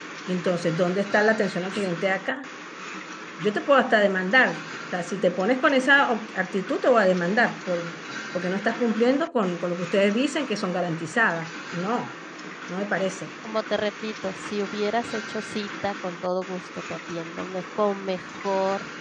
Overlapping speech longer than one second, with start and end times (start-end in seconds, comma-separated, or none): none